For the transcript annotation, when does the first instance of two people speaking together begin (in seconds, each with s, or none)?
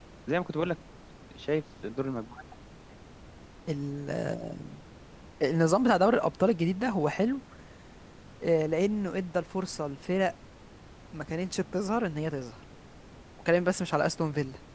none